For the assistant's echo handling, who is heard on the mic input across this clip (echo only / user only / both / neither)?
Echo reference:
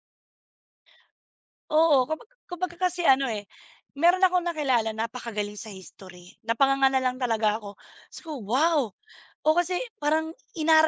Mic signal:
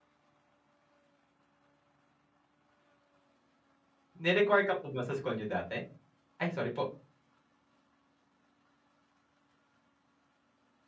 user only